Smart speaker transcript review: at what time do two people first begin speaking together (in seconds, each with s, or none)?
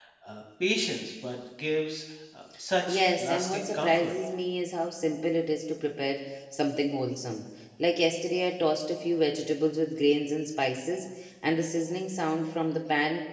2.9 s